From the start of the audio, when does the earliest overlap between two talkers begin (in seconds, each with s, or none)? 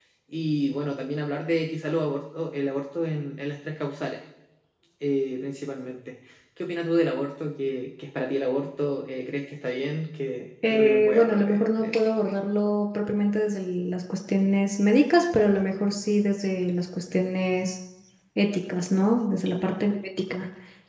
10.6 s